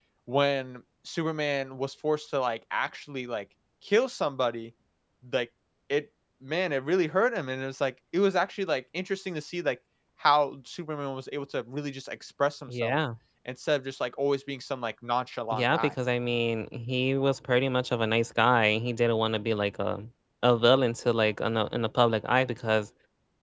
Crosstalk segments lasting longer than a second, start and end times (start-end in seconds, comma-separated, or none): none